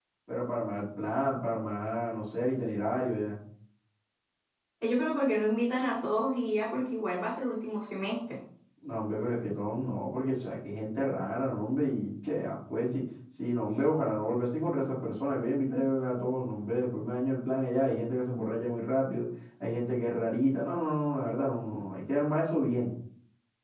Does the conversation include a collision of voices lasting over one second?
No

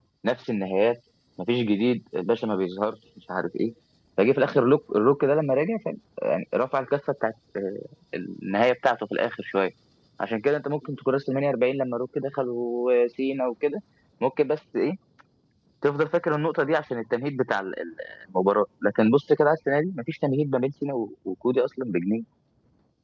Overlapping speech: No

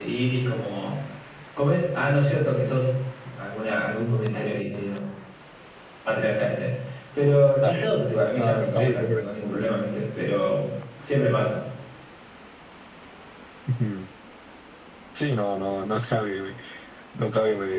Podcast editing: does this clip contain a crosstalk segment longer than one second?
Yes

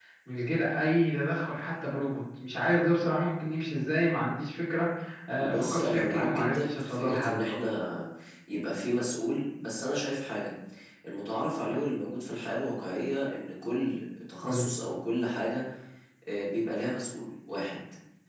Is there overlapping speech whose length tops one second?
Yes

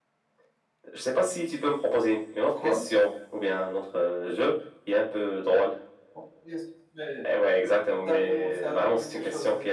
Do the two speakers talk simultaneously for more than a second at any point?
Yes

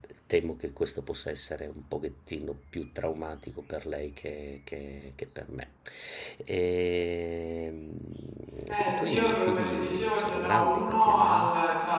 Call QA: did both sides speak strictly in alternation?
No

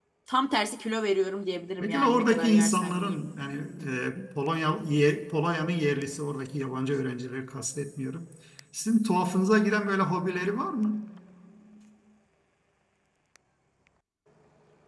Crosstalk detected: Yes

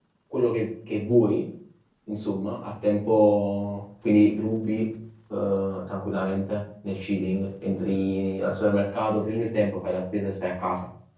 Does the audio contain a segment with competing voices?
No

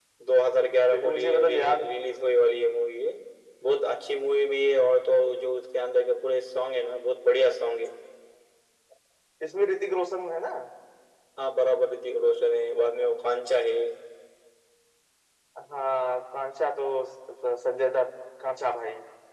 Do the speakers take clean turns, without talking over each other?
No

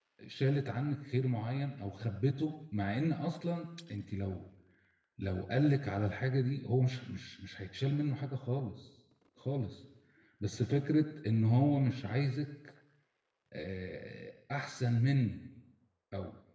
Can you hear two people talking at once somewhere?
No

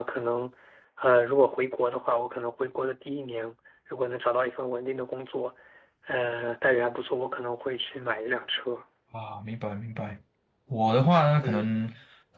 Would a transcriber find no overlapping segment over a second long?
Yes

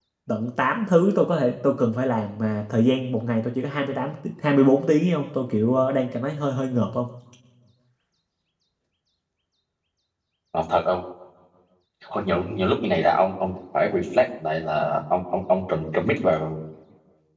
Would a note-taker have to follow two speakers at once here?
No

